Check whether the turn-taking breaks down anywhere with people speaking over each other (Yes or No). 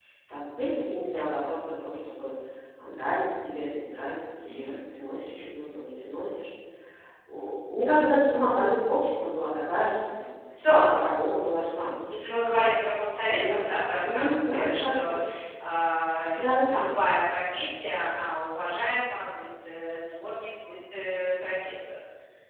Yes